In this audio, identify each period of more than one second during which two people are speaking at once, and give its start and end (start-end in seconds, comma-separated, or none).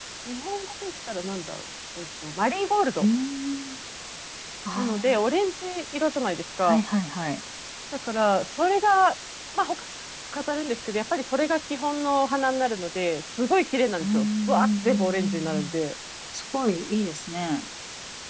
14.0-15.7